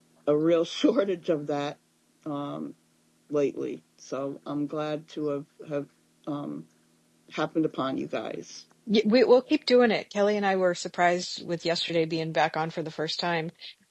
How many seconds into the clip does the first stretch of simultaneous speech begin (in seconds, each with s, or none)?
none